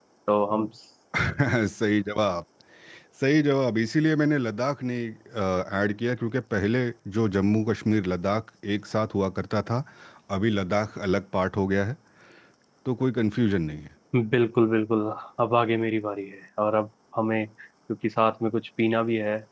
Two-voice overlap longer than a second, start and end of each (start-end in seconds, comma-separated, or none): none